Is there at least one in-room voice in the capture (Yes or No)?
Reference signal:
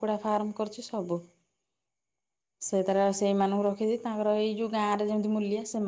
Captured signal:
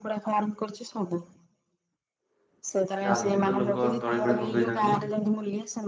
Yes